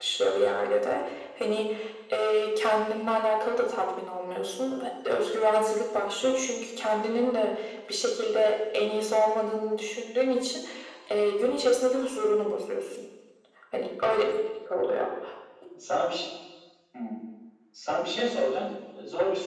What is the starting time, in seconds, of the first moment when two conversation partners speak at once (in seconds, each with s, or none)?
none